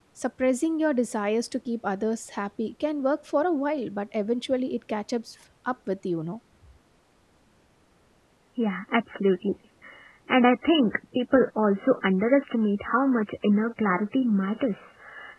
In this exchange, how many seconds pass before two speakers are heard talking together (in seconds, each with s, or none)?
none